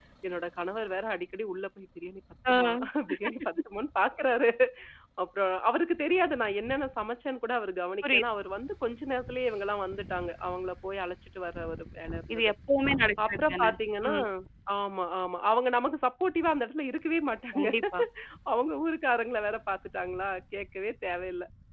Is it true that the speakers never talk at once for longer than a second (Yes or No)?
Yes